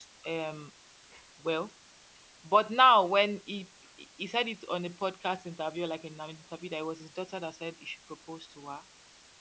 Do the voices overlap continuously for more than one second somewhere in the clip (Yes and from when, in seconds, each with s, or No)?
No